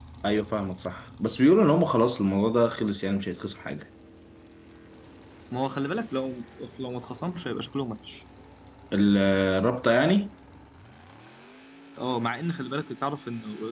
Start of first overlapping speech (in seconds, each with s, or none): none